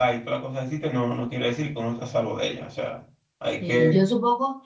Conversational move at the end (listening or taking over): taking over